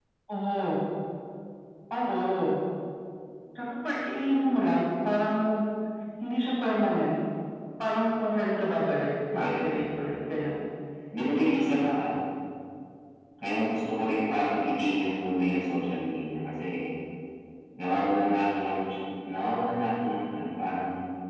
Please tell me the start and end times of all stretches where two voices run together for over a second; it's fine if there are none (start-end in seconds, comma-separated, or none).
9.3-10.6